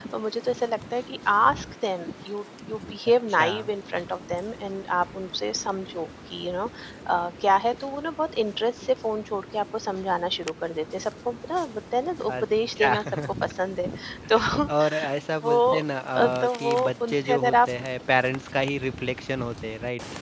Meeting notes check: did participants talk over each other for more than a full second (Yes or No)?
Yes